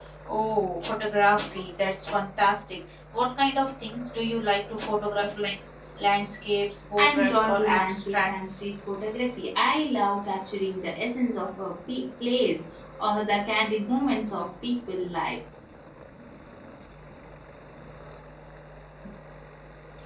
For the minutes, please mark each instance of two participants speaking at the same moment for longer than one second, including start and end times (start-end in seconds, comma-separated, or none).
7.0-8.3